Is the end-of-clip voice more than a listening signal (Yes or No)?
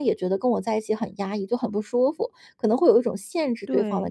Yes